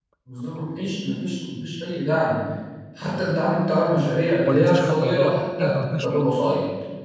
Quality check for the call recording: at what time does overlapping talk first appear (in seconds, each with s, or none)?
4.5 s